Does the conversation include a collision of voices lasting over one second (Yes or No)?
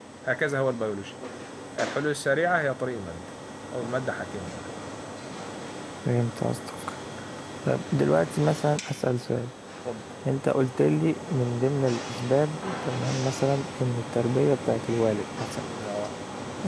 No